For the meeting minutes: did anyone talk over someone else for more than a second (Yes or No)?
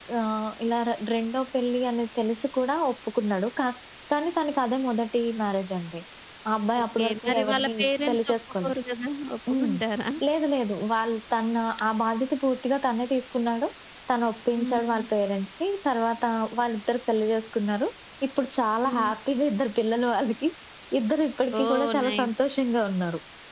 Yes